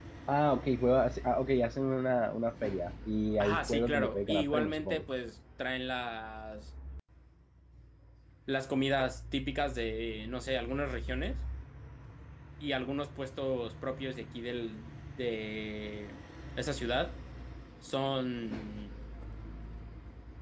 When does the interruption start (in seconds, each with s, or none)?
3.4 s